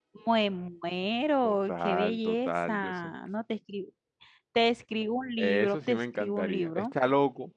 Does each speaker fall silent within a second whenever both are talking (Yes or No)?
No